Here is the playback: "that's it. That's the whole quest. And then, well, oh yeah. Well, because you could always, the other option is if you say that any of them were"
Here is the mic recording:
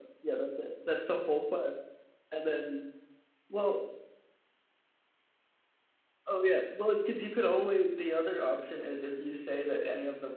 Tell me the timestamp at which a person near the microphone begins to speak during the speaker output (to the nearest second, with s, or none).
none